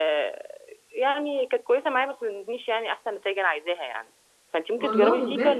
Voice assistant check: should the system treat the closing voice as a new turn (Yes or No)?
No